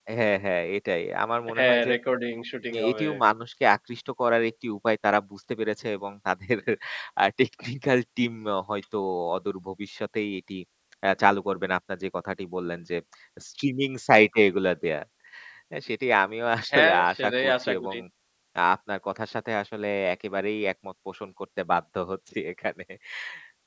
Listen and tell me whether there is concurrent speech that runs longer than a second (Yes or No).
Yes